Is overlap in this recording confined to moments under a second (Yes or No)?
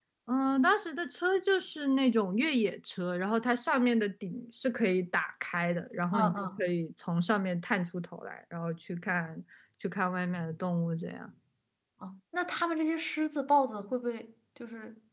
Yes